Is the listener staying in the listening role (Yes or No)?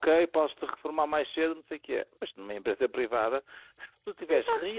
Yes